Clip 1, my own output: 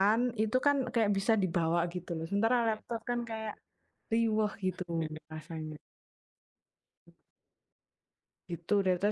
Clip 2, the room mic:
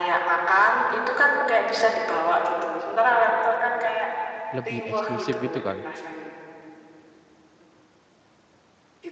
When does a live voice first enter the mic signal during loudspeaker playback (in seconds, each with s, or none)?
4.6 s